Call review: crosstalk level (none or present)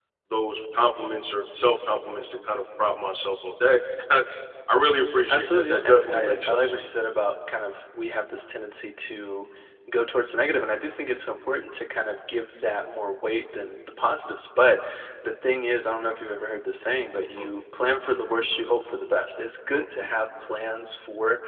present